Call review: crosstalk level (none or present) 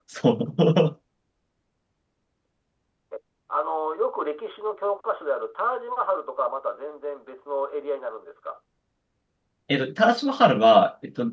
none